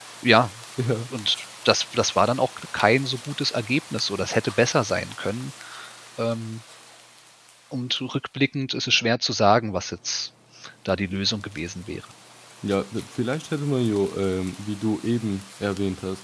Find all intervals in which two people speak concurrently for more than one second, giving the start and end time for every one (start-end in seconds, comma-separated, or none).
none